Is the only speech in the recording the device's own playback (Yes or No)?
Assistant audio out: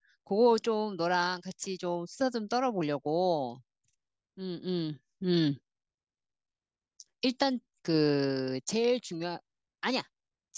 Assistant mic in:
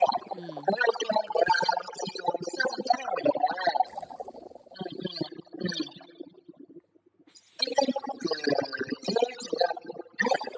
No